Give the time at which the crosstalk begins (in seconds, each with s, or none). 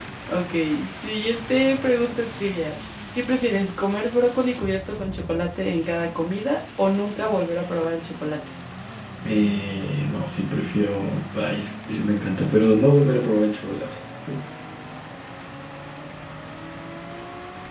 none